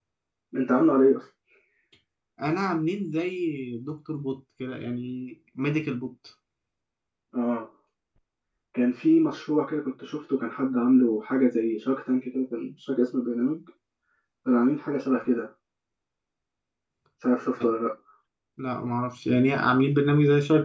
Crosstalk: none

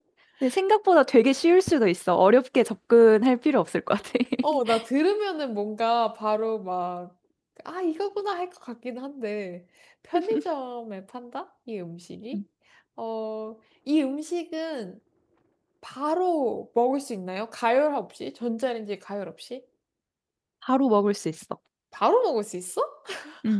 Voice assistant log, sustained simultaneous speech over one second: none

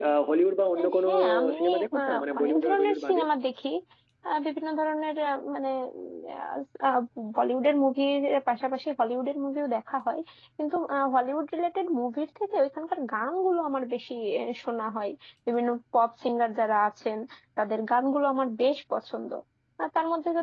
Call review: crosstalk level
present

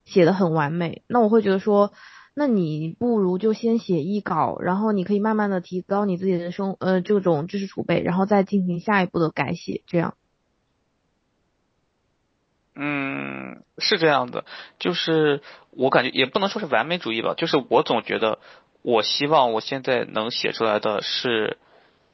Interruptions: none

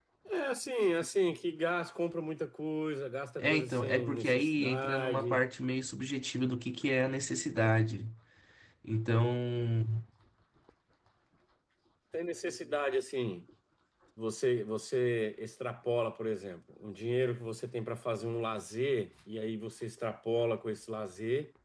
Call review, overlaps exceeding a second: present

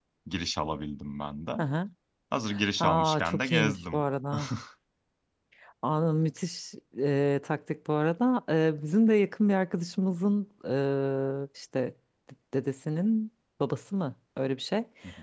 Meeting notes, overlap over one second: present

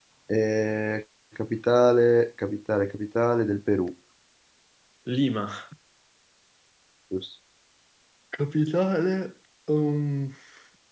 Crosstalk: none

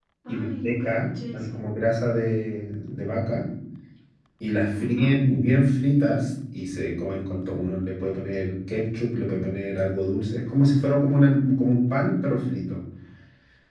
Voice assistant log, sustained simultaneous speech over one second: present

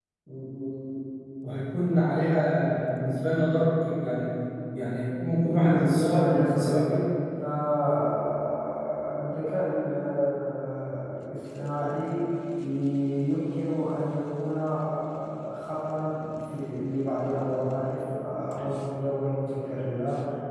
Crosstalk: present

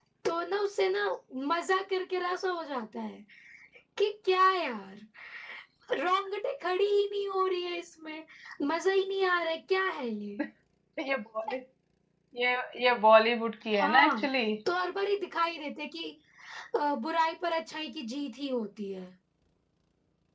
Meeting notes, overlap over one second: none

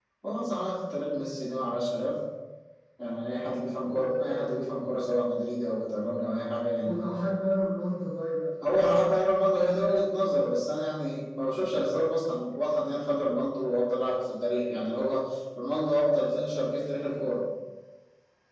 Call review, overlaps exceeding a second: none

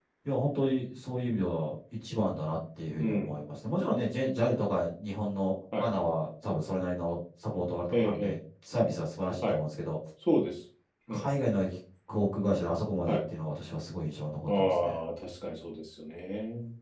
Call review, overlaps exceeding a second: none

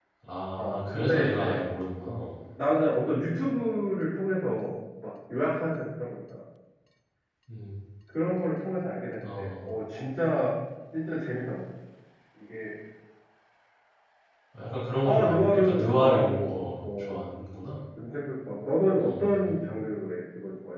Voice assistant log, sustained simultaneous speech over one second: present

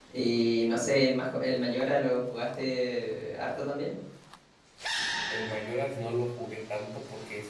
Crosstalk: none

